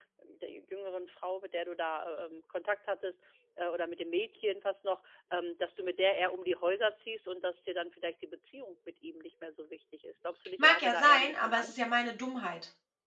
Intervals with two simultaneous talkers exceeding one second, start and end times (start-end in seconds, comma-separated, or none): 10.6-11.9